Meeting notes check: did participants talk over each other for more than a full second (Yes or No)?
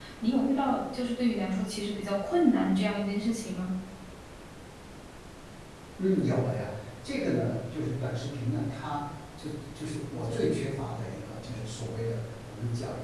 No